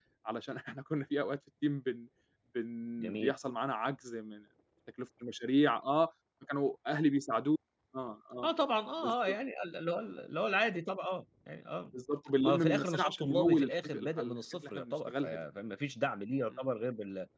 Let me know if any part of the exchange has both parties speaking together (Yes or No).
Yes